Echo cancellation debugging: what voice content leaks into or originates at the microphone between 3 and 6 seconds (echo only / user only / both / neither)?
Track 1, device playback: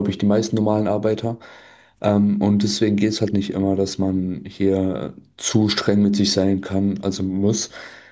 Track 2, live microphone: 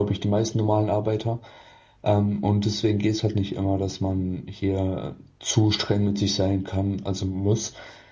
echo only